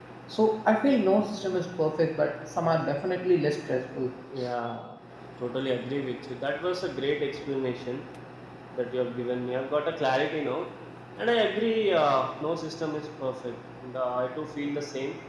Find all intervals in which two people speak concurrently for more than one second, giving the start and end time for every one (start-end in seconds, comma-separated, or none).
none